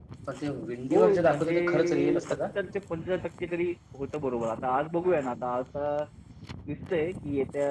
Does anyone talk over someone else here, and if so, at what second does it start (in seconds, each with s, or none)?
0.9 s